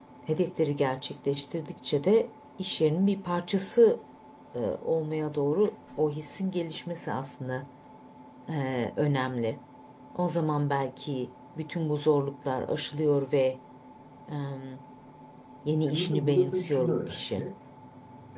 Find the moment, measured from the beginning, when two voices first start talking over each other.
16 s

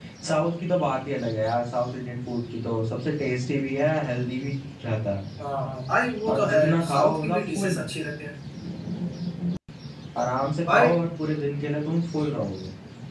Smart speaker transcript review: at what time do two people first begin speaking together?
6 s

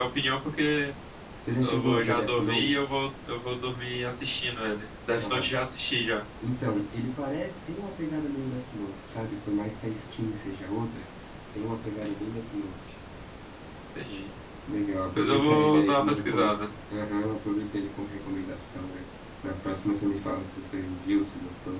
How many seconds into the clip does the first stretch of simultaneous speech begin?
2 s

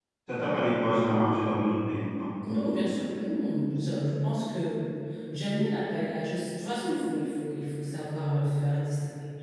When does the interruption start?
none

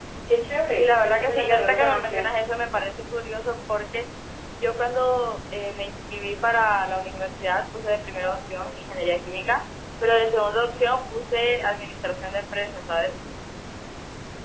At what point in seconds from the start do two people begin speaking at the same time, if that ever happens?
1 s

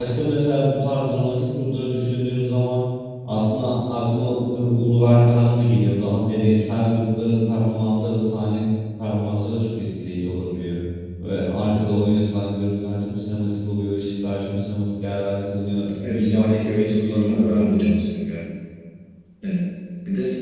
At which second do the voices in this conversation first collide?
16 s

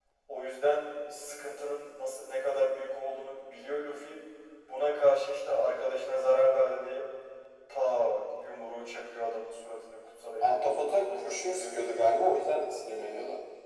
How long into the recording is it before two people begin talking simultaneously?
10 s

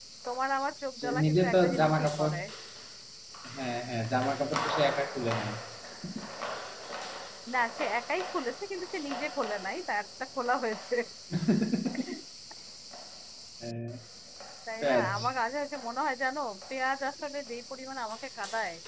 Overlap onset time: 1 s

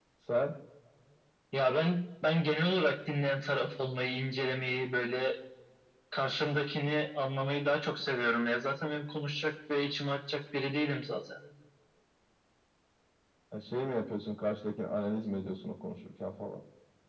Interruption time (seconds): none

